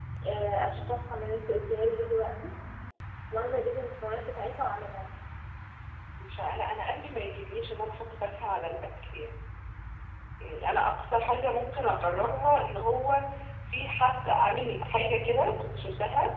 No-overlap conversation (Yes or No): Yes